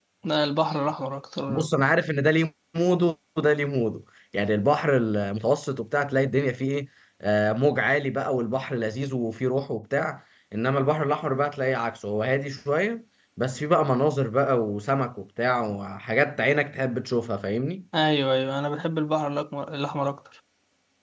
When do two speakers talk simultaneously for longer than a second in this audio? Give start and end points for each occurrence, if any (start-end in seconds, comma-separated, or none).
none